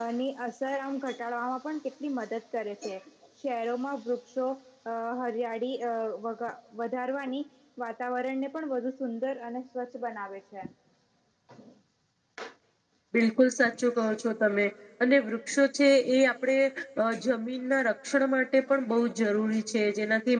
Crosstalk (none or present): none